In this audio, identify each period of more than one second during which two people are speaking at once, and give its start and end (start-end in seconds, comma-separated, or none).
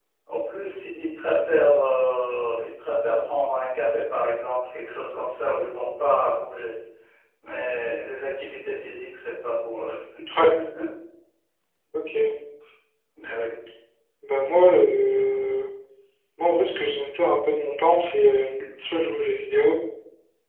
none